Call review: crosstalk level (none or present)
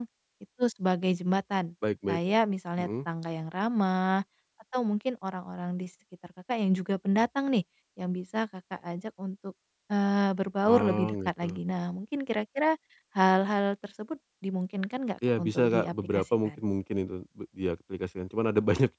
present